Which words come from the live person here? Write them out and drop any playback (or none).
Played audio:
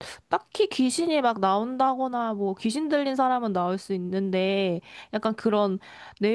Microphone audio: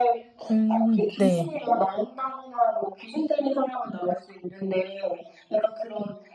음, 네.